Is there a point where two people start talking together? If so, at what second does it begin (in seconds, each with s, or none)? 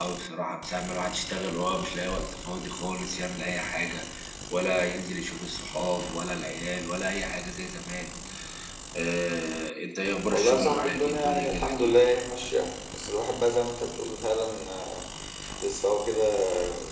10.3 s